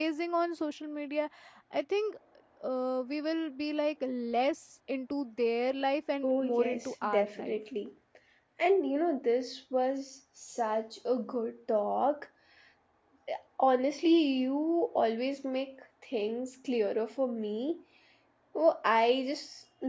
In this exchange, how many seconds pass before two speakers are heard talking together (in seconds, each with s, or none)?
6.2 s